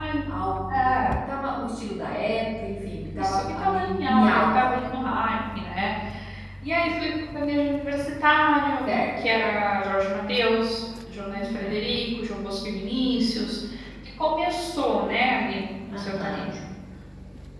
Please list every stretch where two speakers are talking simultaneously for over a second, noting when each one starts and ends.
3.2-4.8

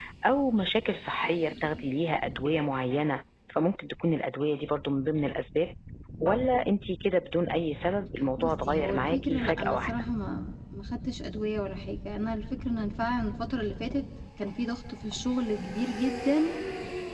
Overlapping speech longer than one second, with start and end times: 8.4-9.9

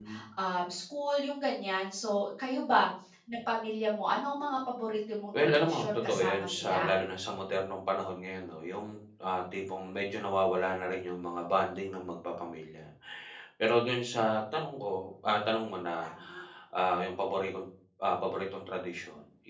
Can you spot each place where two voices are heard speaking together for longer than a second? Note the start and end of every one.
5.3-6.9

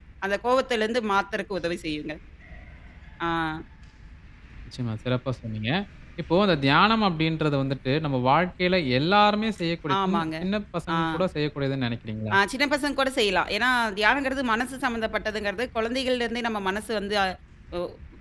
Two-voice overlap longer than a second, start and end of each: none

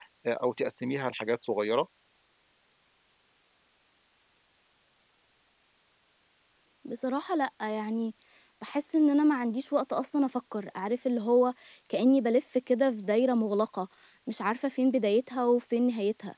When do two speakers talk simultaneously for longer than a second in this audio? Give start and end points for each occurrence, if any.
none

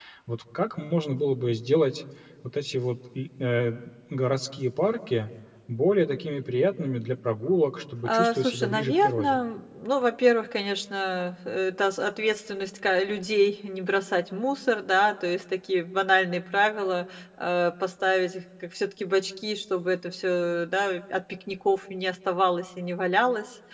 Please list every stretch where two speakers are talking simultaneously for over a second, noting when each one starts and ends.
8.0-9.4

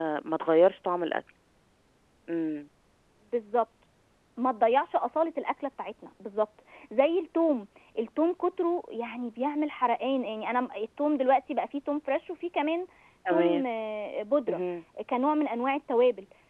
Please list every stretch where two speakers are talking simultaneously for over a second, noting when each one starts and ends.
none

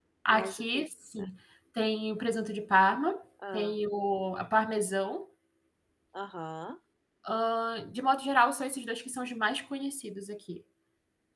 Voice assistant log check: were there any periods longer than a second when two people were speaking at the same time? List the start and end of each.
none

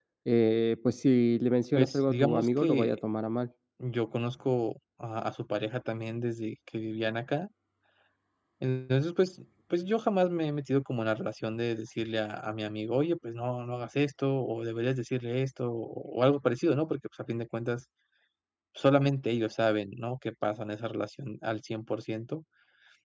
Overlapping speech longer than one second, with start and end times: 1.8-3.0

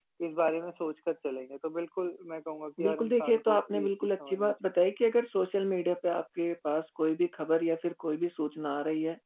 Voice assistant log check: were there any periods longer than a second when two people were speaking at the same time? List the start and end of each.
2.8-4.5

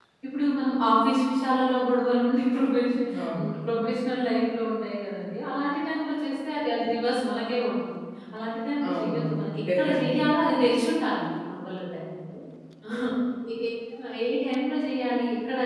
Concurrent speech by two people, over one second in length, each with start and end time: 8.9-10.3

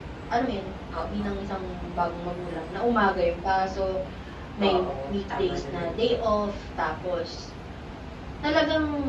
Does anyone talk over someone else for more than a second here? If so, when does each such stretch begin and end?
4.6-6.2

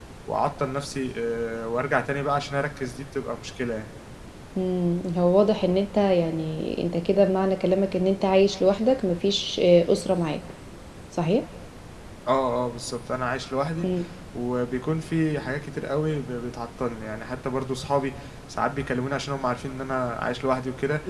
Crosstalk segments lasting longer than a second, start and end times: none

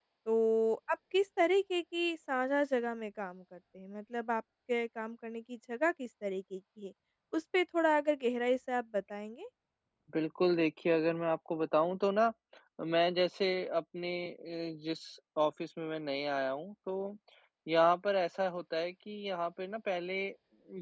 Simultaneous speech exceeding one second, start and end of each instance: none

